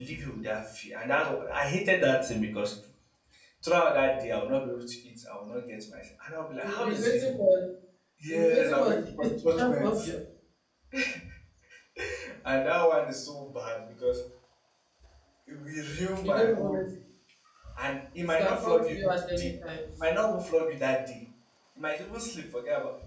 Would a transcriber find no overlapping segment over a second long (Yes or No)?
No